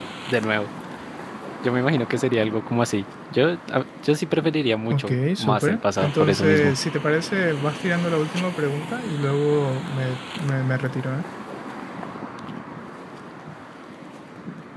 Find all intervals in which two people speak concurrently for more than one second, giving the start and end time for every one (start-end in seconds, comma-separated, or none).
4.9-6.7